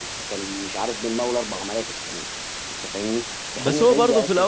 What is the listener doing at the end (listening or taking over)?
taking over